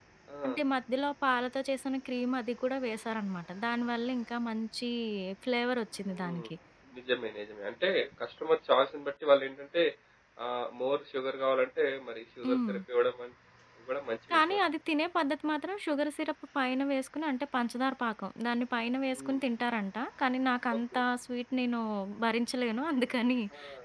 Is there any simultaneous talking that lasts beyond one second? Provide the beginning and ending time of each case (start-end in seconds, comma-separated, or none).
none